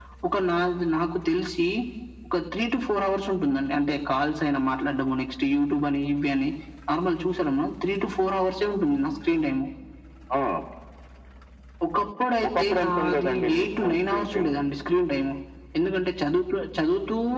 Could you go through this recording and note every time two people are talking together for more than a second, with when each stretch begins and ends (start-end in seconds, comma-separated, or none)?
12.5-14.5